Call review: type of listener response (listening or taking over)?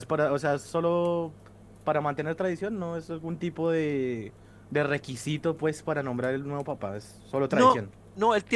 taking over